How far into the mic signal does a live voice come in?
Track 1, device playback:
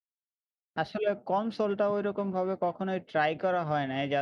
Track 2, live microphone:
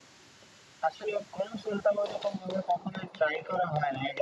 none

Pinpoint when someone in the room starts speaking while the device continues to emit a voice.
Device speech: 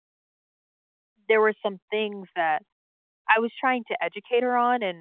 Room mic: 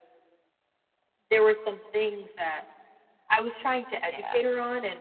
4.1 s

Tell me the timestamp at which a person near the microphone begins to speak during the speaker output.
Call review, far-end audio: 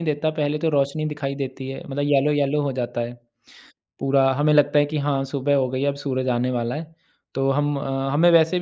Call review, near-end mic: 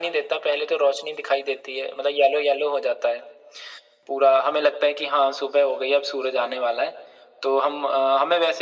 none

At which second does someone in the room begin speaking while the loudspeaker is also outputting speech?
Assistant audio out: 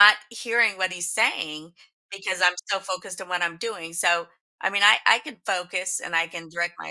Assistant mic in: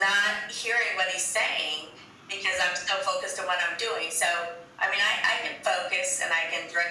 none

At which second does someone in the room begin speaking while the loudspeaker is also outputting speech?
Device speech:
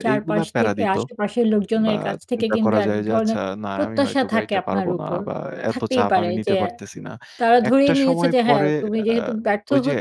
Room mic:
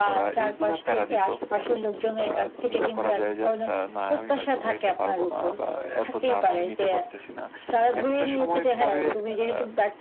none

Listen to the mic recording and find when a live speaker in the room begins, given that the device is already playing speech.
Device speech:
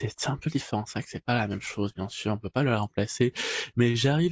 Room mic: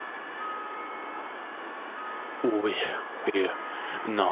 2.4 s

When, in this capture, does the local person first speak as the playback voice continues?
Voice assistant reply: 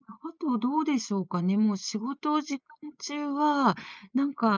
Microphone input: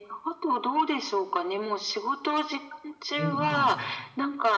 3.2 s

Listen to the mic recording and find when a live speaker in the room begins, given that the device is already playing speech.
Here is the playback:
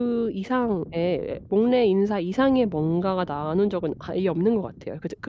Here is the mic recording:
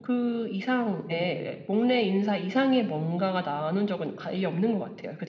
1.0 s

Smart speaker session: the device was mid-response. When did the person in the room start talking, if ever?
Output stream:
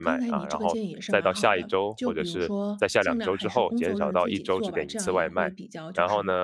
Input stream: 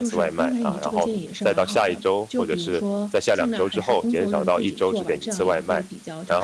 none

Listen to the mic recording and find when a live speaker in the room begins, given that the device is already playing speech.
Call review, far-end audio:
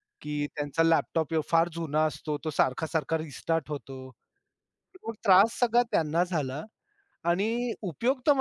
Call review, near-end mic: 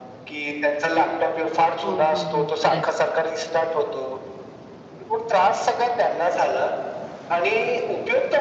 1.8 s

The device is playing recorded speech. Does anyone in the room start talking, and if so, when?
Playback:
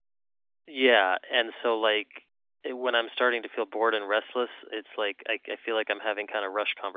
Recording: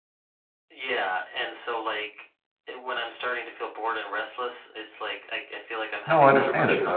6.0 s

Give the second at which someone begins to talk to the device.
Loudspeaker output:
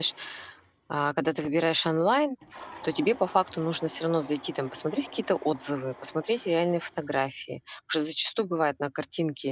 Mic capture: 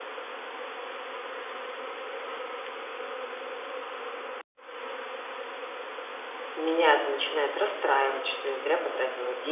6.5 s

